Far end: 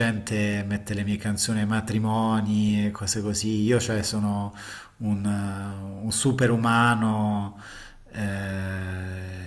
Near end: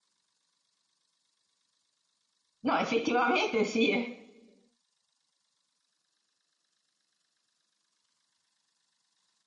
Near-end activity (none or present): present